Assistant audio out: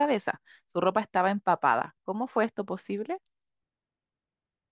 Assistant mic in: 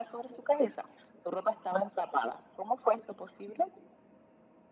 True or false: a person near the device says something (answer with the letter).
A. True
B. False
B